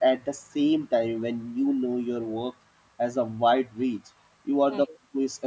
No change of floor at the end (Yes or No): Yes